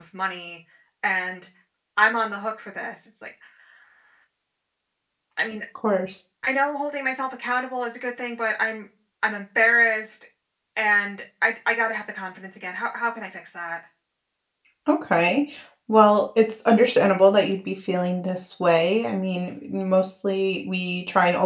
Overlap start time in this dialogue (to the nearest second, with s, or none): none